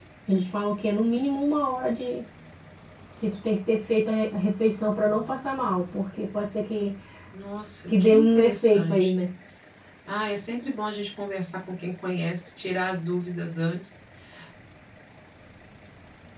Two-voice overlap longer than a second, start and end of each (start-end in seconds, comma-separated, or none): 7.9-9.2